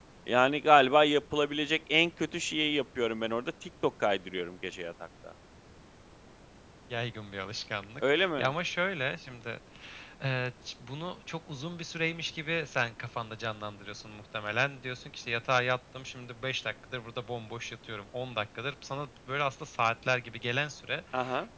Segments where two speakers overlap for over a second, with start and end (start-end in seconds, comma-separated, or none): none